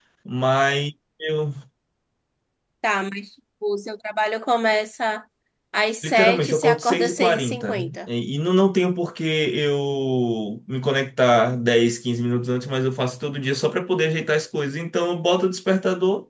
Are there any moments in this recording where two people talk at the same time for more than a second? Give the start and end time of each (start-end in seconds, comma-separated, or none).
6.0-8.0